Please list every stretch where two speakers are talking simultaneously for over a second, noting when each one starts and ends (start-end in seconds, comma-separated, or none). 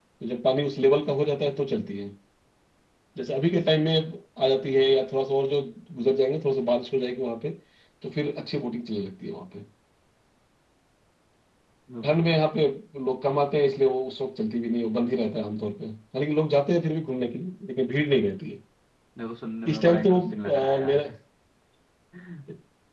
19.7-21.0